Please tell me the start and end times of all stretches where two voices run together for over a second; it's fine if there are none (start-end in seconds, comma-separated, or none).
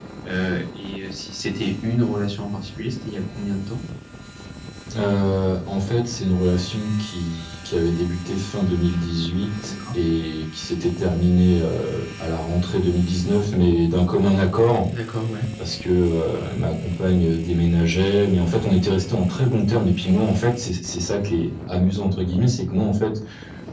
none